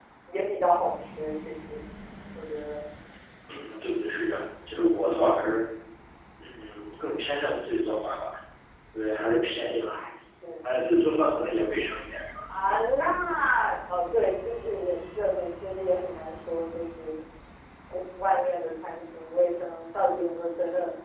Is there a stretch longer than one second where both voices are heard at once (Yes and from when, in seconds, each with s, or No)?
No